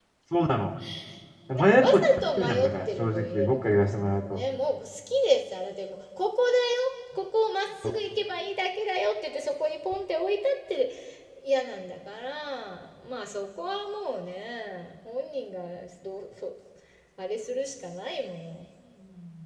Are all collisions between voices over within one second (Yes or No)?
No